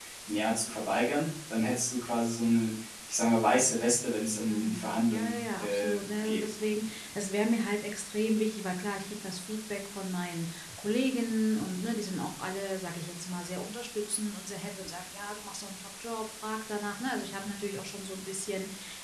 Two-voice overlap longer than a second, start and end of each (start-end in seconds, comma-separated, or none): 4.5-6.4